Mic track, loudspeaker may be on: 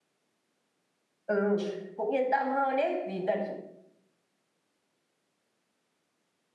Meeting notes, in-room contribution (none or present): present